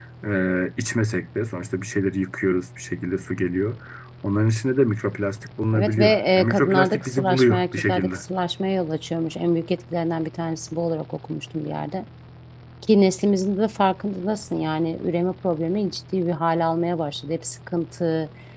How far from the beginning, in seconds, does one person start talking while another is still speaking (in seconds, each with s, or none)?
5.7 s